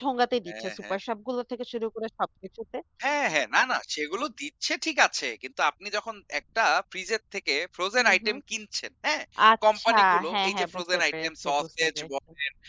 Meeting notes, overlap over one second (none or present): present